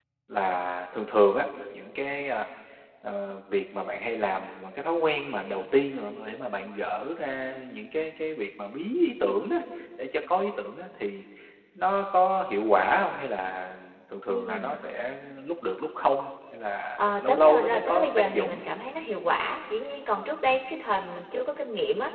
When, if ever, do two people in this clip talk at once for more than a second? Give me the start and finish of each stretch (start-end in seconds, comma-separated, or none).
17.0-18.6